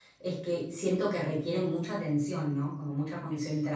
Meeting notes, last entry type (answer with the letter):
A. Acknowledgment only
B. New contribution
A